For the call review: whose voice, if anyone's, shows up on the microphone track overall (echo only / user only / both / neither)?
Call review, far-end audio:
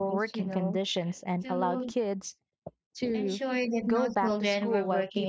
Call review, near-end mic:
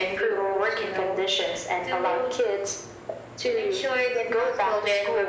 echo only